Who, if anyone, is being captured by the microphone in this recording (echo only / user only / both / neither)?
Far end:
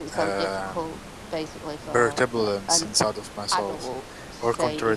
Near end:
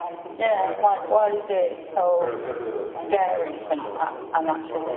both